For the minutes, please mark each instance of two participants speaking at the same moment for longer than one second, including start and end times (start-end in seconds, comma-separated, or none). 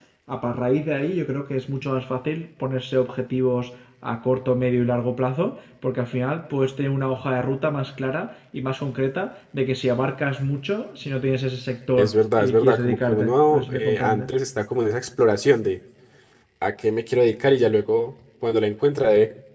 12.0-14.3